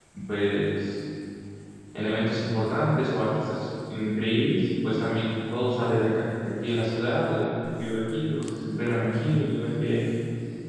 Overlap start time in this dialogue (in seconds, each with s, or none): none